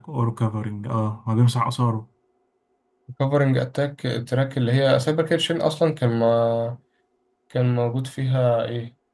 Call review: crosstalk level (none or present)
none